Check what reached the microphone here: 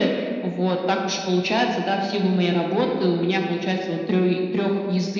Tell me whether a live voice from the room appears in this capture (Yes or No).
No